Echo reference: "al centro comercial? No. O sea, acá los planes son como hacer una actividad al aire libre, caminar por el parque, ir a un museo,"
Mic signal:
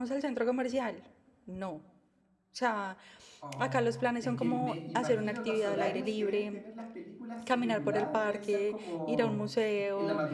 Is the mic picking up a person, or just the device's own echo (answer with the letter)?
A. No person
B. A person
B